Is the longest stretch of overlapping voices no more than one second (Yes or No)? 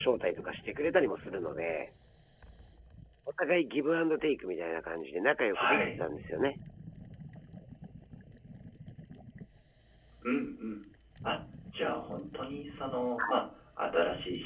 Yes